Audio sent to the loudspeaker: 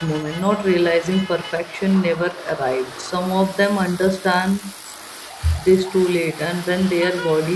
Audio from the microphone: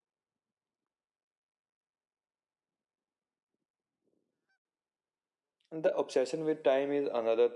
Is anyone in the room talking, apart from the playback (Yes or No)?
Yes